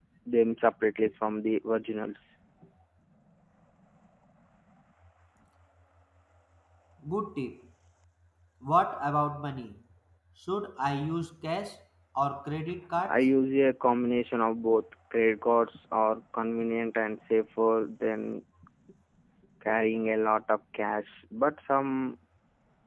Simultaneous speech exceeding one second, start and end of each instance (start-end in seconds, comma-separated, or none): none